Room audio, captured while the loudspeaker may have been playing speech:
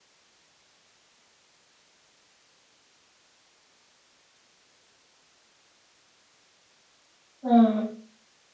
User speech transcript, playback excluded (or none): Mm,